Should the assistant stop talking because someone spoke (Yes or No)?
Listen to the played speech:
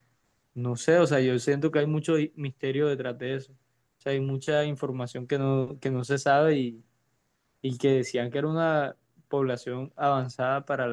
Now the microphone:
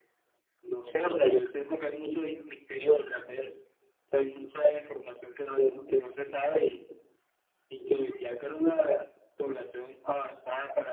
No